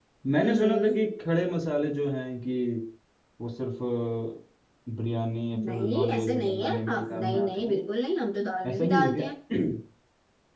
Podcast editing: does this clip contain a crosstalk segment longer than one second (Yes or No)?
Yes